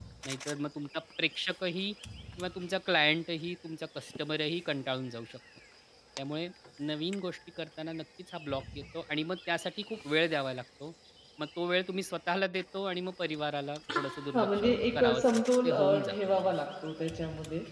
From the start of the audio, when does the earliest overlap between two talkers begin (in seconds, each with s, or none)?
14.3 s